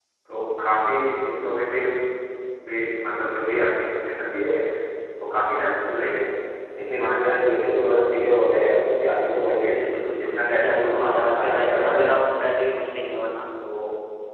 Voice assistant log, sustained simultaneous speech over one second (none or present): present